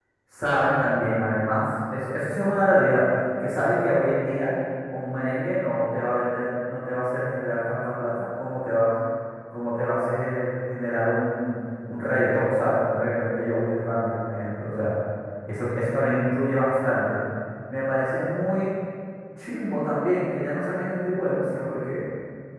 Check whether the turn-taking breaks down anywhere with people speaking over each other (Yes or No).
No